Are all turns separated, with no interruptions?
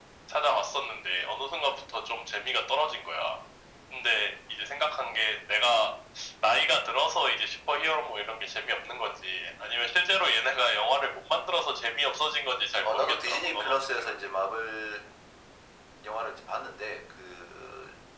No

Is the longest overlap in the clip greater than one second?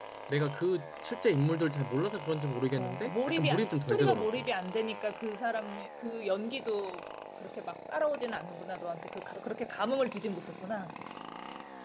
Yes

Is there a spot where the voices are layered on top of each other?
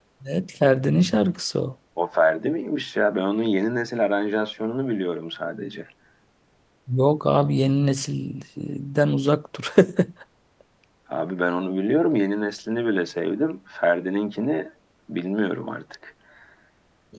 No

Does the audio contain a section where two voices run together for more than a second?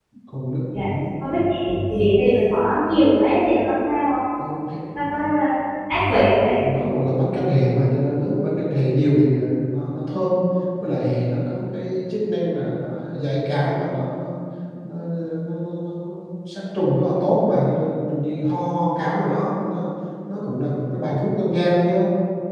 No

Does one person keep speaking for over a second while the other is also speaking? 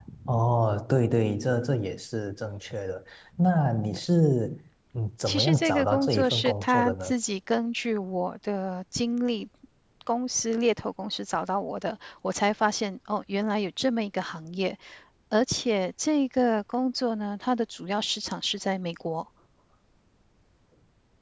Yes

